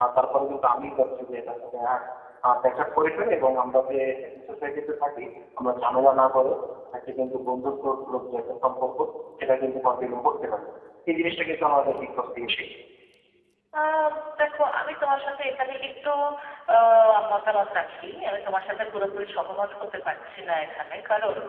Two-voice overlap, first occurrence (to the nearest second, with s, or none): none